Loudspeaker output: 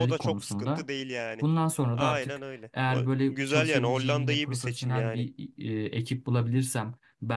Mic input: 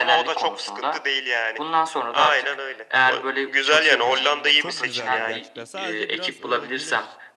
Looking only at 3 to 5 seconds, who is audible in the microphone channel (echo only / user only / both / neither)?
both